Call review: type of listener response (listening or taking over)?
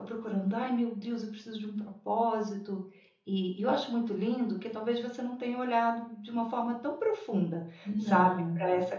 listening